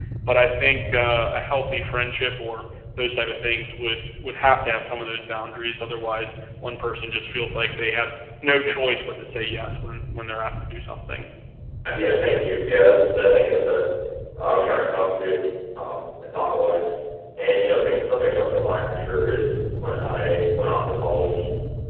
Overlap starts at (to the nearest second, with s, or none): none